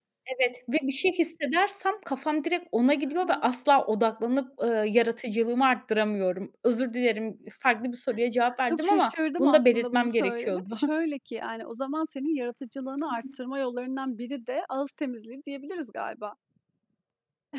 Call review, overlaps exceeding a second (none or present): present